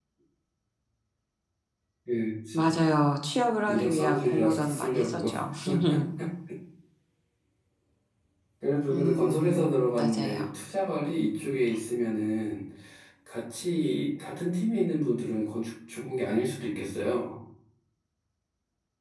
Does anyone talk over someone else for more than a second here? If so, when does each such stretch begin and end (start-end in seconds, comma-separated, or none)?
3.7-5.2, 8.9-10.4